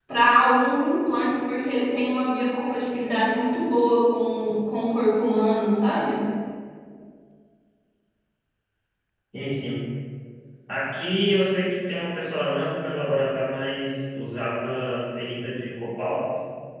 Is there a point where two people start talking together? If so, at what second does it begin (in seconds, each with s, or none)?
none